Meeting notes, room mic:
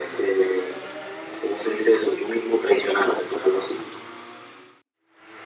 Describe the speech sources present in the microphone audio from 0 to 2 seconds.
echo only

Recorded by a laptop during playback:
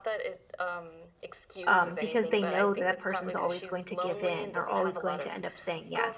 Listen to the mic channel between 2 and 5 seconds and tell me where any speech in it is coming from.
both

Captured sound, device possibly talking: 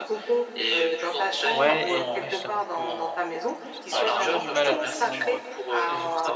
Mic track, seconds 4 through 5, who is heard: both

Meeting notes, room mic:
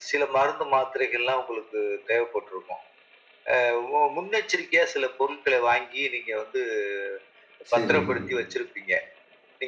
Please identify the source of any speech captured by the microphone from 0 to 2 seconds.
echo only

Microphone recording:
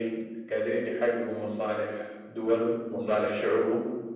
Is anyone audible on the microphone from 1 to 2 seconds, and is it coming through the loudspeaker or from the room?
echo only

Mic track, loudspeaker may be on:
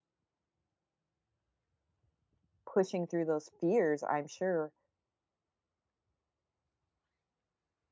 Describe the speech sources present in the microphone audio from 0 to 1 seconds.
neither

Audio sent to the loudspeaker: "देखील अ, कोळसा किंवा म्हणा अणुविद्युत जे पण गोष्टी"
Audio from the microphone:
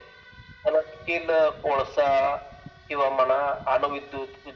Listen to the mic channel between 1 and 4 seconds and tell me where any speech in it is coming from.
echo only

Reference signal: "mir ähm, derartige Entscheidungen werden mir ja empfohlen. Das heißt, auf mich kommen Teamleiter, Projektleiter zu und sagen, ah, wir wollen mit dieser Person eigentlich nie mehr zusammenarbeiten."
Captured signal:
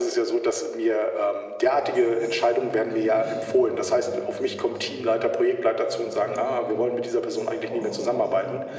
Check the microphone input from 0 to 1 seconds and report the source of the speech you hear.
echo only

